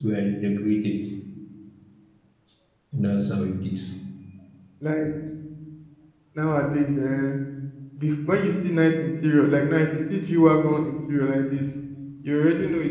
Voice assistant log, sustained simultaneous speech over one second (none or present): none